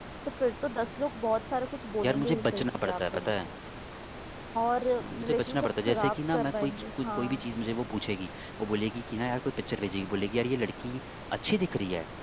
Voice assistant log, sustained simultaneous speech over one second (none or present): present